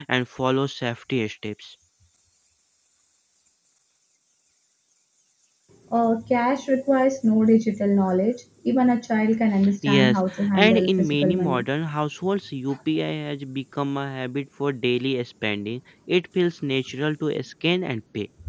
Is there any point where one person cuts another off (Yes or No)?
Yes